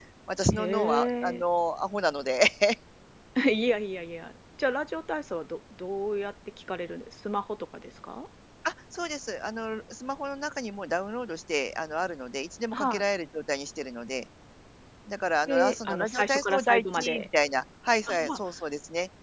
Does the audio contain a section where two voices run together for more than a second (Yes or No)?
Yes